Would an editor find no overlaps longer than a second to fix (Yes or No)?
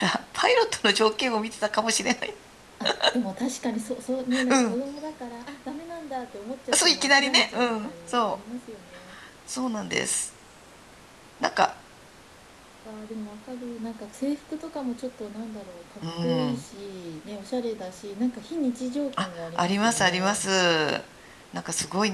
No